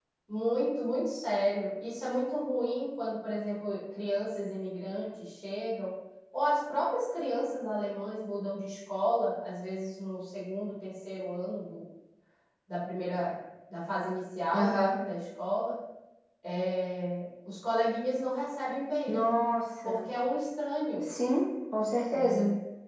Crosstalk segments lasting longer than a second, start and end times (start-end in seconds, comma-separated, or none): none